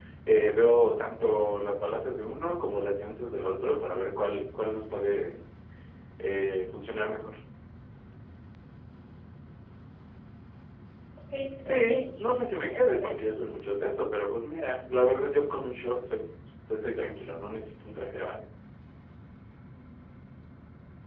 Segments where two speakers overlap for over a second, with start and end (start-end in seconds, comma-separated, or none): 11.6-13.2